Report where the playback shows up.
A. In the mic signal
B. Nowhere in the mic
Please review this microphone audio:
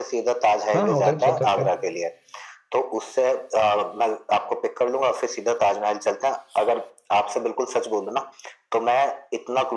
A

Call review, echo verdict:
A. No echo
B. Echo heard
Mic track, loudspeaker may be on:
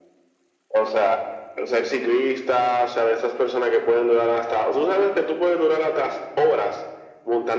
B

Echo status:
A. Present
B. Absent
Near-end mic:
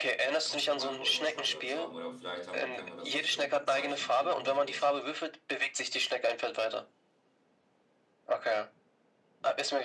A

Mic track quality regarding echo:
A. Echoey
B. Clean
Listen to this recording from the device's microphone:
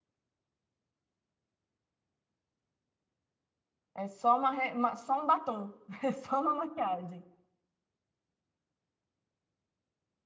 B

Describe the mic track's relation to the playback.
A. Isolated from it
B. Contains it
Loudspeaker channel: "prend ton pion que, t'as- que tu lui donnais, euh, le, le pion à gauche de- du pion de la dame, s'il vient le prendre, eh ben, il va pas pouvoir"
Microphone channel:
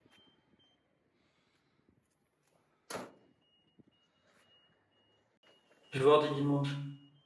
A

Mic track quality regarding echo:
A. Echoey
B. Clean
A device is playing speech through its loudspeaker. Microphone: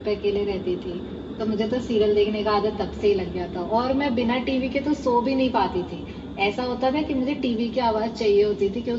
B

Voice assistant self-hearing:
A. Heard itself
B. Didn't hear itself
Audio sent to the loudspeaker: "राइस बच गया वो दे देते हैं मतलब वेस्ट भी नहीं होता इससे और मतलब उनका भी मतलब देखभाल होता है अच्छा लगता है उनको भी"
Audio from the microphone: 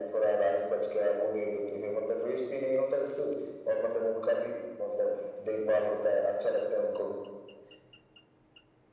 A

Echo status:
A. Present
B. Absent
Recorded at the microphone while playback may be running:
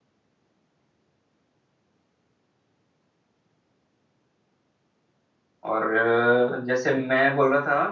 B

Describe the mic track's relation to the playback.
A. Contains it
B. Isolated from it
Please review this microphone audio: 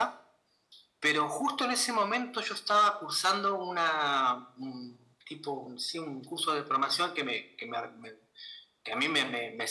A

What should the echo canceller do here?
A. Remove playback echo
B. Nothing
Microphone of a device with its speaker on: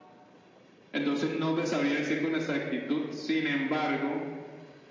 A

